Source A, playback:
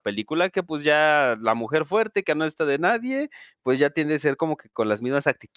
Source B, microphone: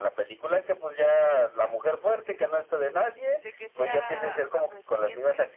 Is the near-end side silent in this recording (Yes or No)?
No